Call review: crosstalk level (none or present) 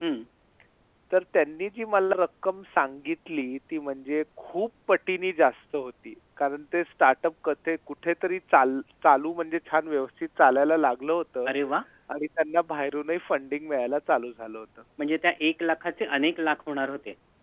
none